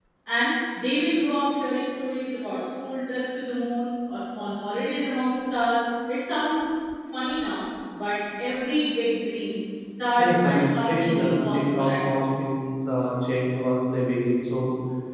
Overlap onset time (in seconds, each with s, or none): 10.2 s